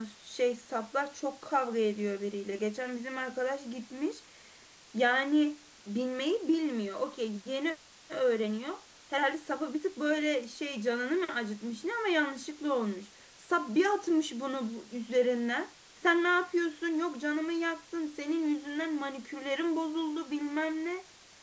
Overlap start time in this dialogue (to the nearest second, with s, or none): none